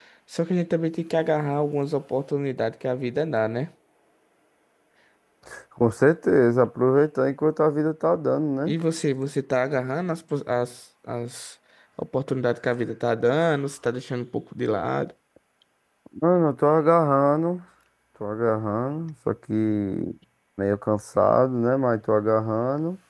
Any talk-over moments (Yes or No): No